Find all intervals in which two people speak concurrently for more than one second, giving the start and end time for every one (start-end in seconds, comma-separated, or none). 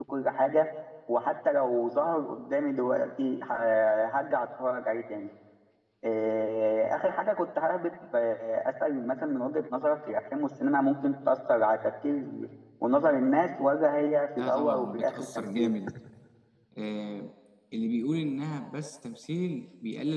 14.4-15.7